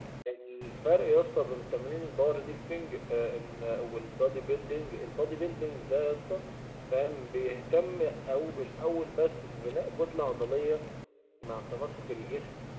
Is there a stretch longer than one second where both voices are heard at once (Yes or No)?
No